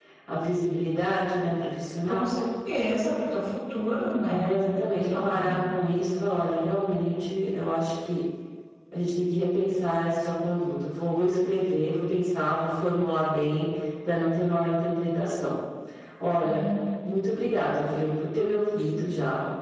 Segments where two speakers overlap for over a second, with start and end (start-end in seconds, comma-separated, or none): 4.3-5.6